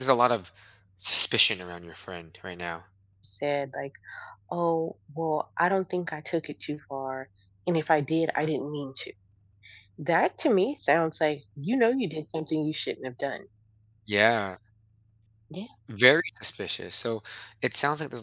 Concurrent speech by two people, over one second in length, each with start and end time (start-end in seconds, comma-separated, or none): none